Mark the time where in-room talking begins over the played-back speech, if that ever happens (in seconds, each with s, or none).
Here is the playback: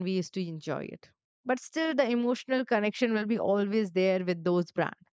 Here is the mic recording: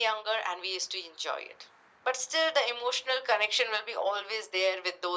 none